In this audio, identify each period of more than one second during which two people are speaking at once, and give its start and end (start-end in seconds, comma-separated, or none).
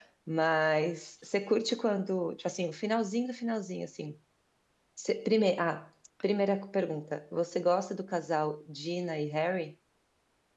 none